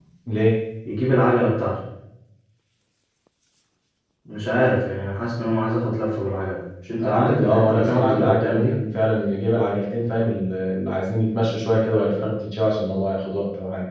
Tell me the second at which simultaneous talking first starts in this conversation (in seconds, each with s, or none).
7.0 s